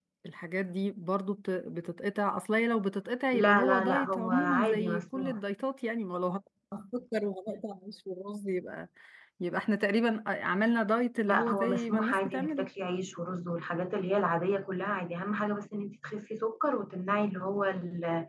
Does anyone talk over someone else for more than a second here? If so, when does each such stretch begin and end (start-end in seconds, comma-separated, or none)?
3.3-5.4, 11.3-12.7